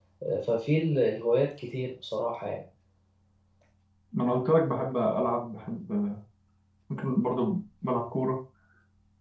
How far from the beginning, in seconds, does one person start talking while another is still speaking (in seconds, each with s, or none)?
none